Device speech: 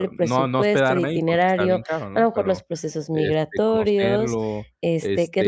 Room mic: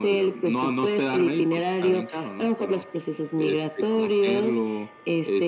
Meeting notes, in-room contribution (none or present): none